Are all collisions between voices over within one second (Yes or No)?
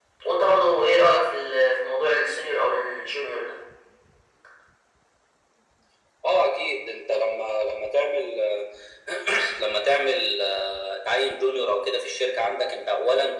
Yes